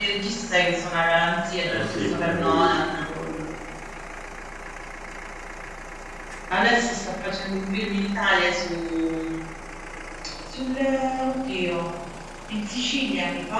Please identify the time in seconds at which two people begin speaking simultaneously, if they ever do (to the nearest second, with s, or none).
2 s